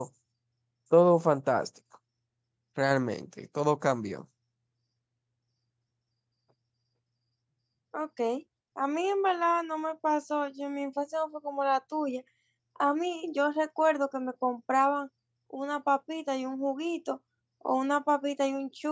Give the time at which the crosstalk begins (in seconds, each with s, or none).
none